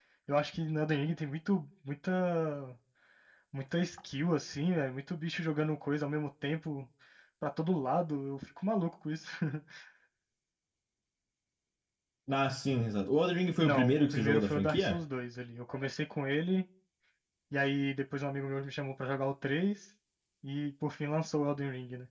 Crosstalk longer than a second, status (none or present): present